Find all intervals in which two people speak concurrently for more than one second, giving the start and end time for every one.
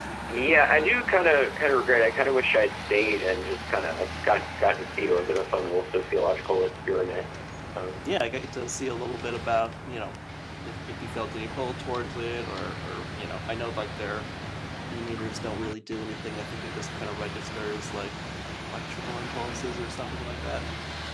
none

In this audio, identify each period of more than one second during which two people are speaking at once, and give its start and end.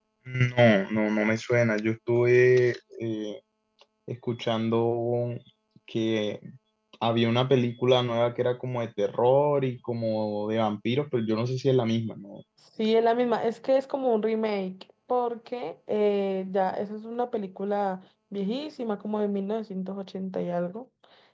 none

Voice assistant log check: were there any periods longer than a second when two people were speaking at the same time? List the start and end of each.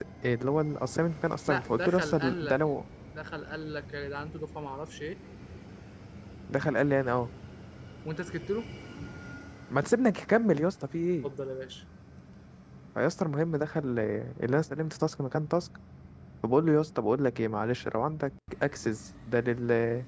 1.5-2.8

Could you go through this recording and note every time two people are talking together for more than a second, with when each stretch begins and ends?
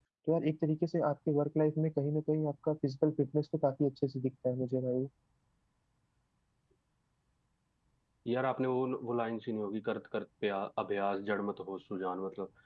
none

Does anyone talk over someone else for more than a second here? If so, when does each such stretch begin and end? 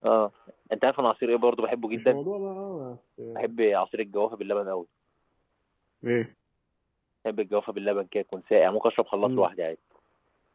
none

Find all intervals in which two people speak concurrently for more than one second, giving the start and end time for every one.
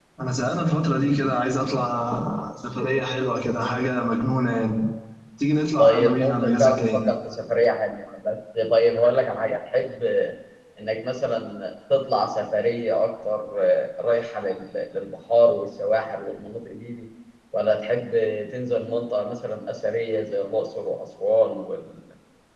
5.8-7.0

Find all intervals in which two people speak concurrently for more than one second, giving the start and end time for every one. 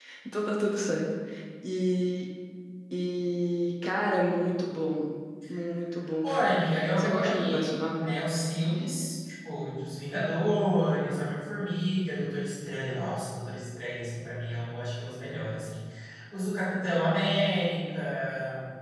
6.2-8.1

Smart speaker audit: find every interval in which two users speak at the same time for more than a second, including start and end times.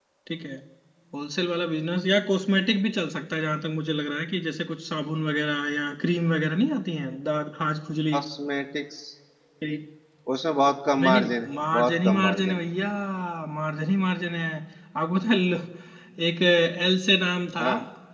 11.0-12.6

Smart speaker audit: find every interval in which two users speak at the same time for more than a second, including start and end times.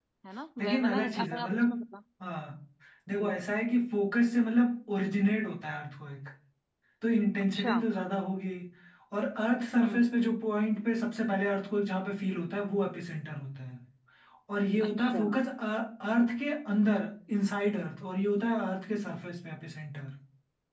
0.6-1.8

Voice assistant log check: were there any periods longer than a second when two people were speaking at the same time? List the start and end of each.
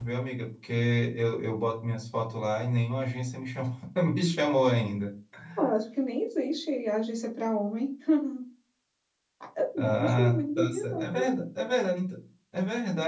9.8-11.2

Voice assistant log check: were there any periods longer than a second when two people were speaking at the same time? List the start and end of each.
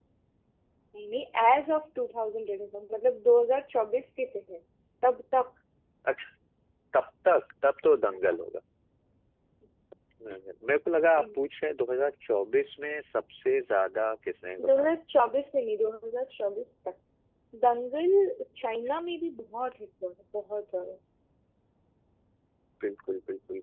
none

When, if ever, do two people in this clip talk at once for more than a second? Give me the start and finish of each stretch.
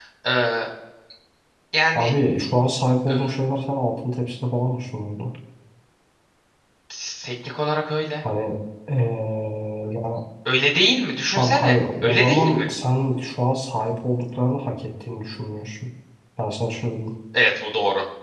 11.3-12.7

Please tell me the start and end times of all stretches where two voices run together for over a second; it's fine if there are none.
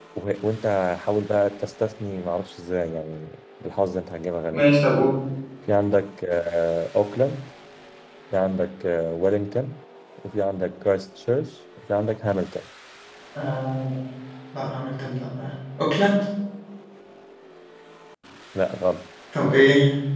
none

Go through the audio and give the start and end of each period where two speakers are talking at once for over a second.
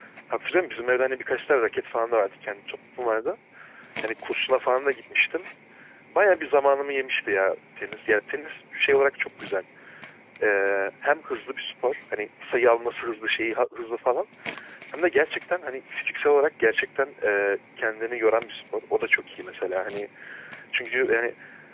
none

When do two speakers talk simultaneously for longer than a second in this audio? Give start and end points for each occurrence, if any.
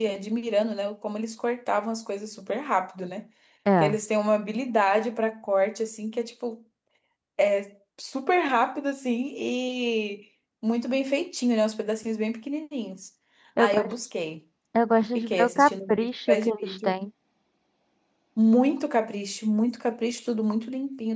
15.2-16.9

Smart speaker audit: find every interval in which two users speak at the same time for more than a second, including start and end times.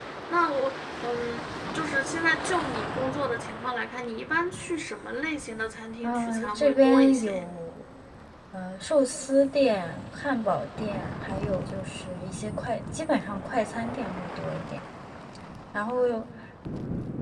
6.0-7.4

